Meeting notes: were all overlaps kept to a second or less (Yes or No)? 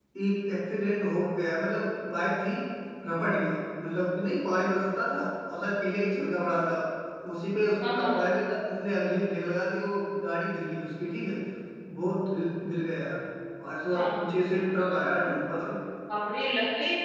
Yes